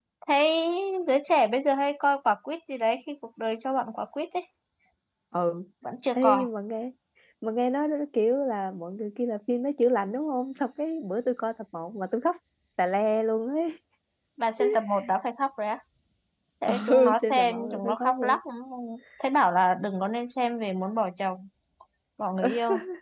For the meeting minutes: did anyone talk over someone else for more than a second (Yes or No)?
Yes